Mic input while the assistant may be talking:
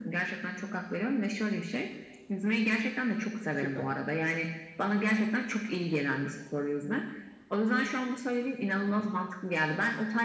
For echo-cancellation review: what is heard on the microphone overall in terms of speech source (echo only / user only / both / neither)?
both